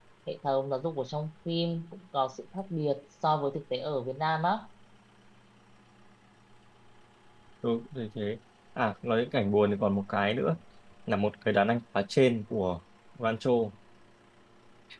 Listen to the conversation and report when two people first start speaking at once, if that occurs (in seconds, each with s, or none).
none